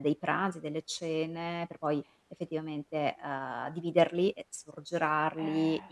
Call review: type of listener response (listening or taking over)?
listening